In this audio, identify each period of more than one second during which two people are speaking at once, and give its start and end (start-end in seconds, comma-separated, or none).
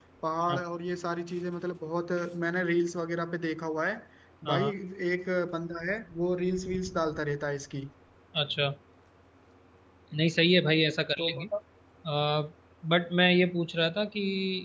none